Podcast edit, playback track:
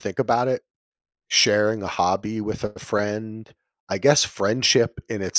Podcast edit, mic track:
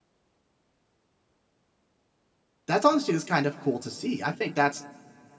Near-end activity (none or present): present